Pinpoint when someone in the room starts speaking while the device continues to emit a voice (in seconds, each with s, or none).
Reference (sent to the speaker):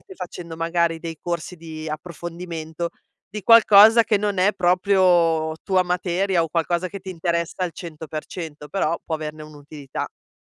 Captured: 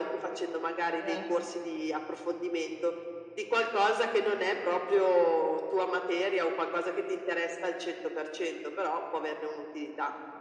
0.9 s